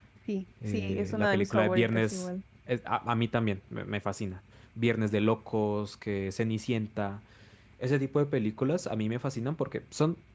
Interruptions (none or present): present